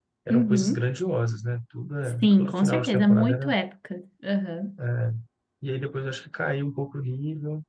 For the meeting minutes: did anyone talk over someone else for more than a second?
Yes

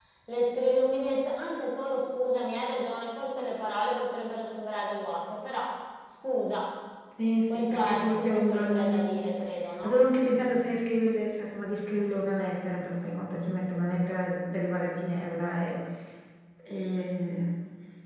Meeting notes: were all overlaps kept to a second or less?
No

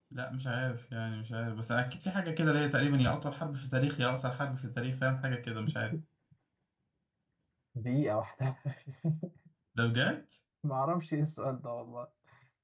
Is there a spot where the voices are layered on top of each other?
No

